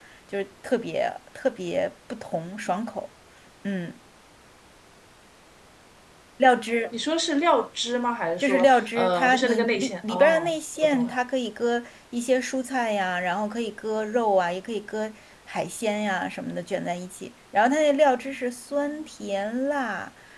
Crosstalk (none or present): present